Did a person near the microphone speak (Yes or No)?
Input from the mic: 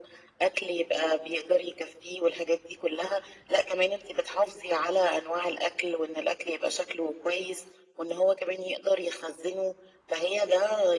No